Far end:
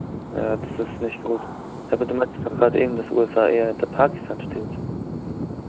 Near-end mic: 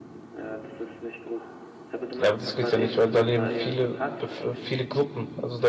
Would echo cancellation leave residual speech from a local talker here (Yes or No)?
Yes